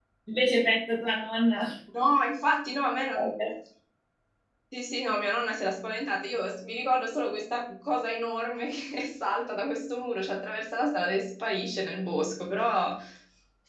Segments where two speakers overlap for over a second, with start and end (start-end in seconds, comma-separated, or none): none